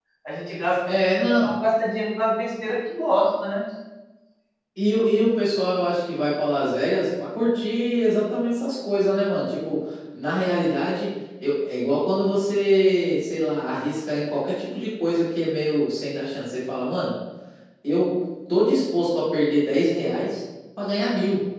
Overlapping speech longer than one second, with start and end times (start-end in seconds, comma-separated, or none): none